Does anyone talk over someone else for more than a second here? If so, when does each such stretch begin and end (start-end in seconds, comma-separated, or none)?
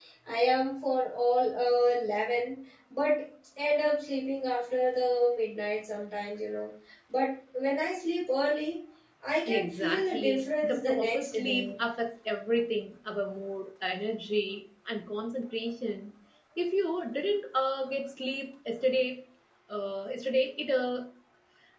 9.5-11.7